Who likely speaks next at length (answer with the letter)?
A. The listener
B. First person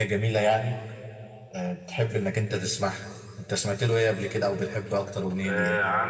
A